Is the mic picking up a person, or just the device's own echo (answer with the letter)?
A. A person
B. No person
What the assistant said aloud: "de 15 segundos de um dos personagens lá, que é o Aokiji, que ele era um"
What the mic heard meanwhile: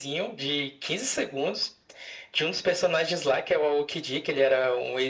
B